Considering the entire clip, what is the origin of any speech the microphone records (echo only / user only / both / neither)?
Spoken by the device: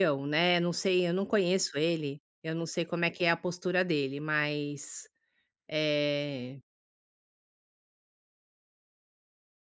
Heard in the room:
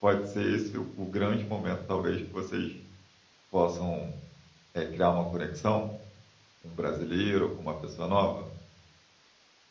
user only